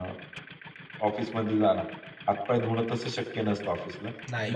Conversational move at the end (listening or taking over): listening